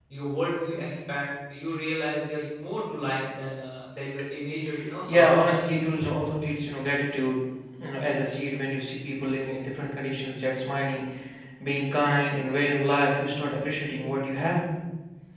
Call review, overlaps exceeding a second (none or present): none